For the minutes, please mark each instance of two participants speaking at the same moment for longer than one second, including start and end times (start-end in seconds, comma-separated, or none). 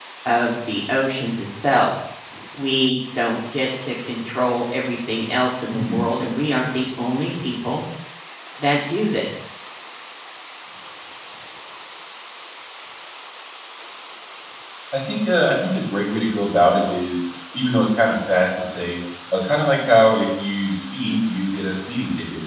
none